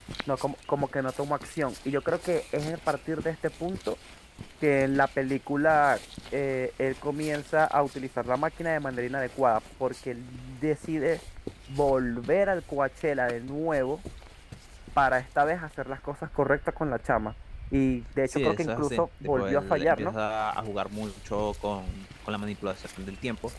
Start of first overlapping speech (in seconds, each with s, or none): 18.3 s